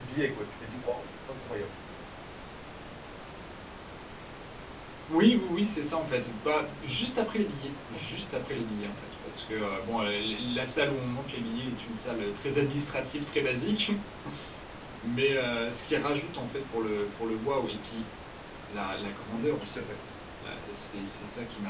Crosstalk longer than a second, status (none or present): none